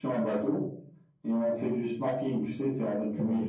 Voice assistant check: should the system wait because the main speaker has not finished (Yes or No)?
Yes